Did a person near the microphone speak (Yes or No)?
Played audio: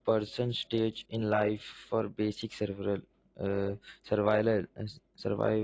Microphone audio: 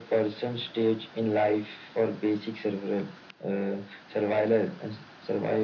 No